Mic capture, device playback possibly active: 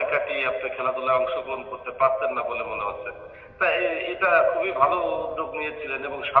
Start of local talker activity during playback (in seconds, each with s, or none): none